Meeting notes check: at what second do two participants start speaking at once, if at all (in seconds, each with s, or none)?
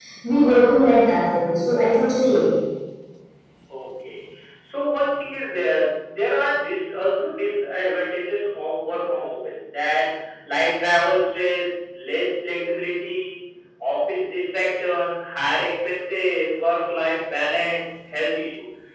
none